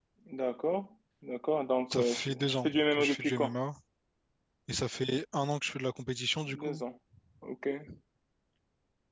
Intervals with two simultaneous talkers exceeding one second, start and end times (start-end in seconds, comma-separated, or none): 1.9-3.5